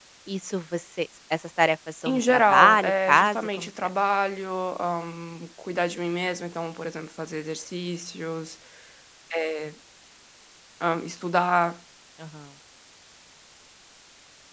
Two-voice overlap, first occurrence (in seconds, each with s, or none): 2.0 s